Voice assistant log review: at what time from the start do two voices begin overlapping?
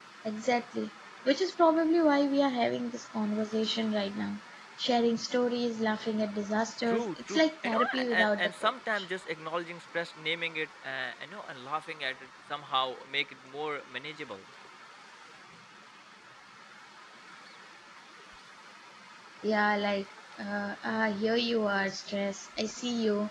7 s

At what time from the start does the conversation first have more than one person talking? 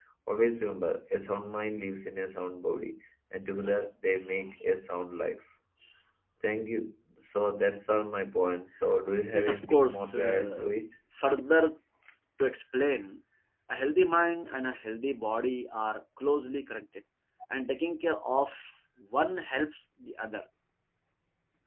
9 s

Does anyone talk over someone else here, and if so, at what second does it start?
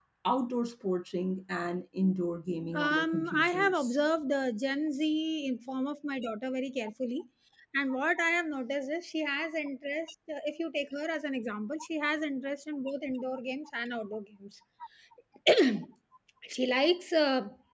3 s

